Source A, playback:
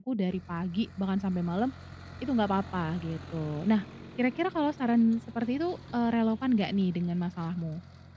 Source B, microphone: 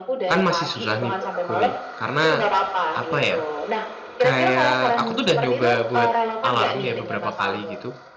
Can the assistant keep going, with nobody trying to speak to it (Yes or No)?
No